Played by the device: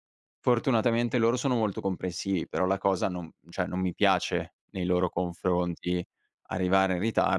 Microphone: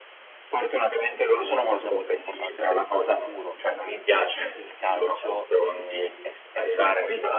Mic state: both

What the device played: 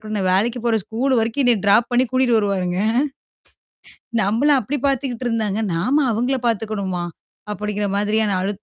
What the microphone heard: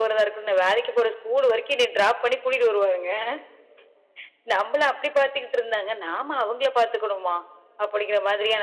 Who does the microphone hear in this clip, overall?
echo only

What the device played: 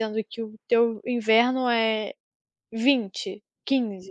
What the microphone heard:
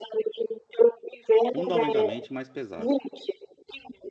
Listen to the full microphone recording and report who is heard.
both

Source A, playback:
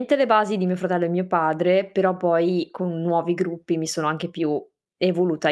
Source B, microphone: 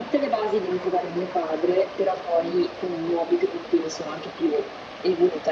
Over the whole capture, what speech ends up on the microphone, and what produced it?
echo only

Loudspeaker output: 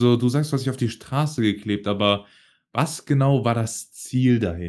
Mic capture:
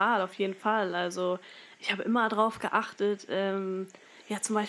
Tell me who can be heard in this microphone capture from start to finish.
user only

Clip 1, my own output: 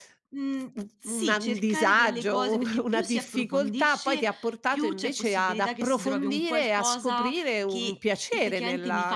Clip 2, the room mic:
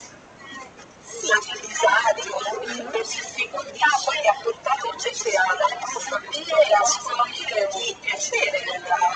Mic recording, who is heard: both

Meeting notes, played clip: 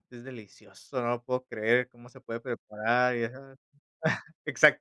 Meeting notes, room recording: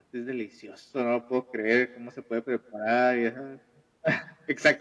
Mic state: echo only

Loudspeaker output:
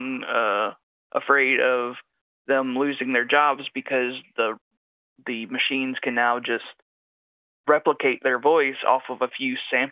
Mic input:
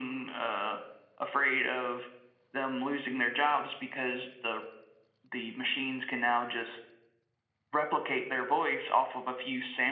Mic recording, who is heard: echo only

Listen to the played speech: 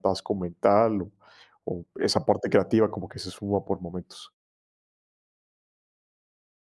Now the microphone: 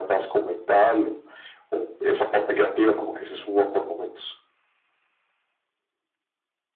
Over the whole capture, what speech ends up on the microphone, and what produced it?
echo only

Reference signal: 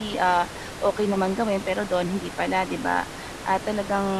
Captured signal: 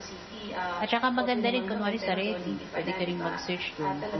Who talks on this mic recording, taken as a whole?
both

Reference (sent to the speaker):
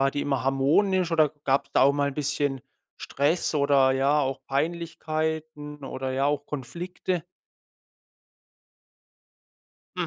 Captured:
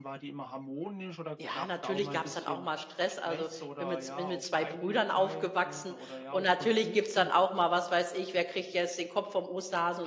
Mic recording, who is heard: both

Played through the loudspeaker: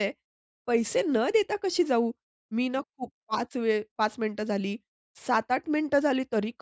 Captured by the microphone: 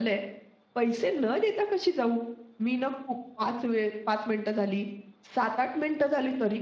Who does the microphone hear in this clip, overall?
echo only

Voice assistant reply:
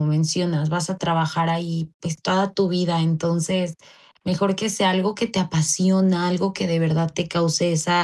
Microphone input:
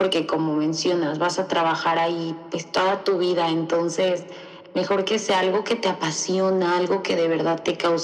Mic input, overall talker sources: echo only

